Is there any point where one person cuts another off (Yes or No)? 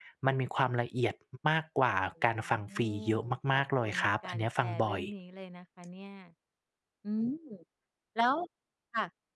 Yes